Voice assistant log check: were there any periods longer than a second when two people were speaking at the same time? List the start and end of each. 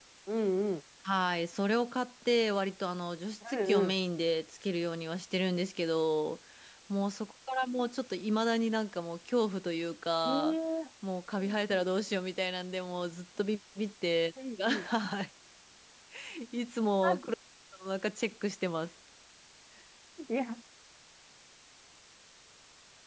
none

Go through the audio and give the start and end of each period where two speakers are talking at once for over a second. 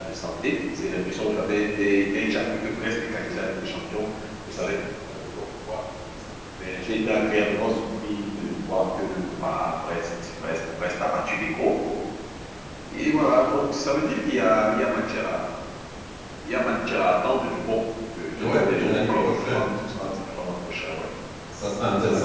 18.4-19.6

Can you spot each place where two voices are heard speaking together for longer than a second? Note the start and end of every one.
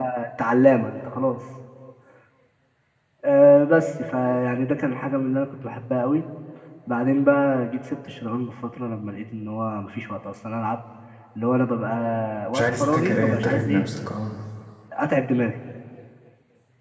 12.5-13.9

